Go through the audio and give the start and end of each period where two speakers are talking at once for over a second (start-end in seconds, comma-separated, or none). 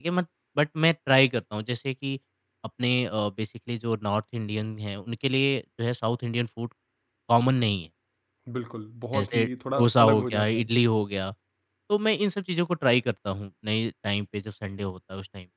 9.2-10.6